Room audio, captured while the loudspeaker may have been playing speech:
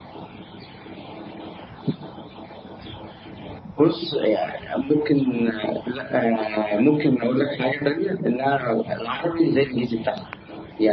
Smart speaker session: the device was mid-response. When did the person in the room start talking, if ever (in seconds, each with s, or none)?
none